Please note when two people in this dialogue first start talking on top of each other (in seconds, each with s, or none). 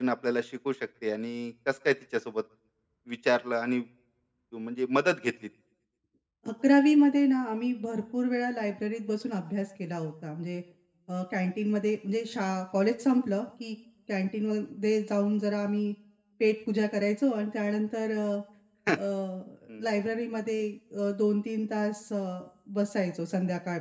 none